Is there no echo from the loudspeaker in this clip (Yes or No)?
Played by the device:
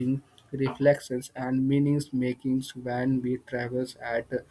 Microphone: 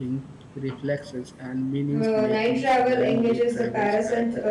No